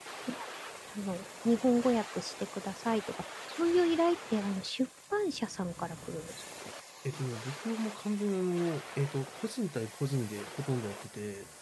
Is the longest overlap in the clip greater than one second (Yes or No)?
No